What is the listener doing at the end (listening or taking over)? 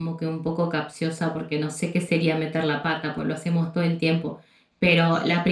listening